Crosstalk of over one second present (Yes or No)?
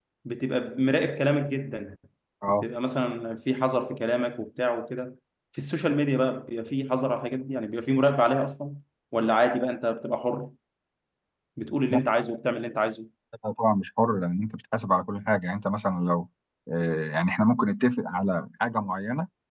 No